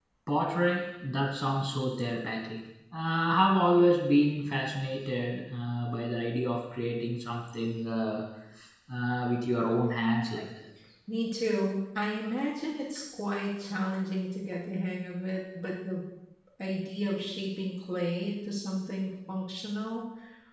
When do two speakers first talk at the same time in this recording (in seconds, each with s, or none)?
none